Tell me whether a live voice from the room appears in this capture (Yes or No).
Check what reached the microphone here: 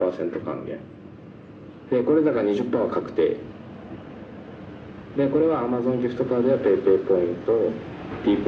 No